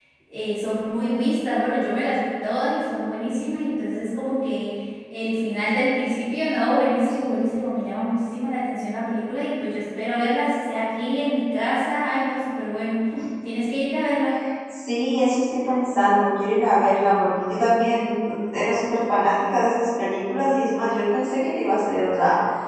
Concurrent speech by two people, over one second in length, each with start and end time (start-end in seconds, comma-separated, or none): none